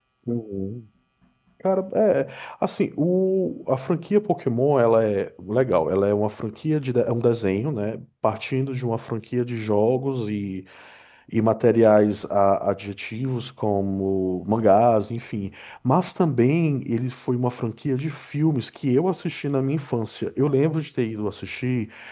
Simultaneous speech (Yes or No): No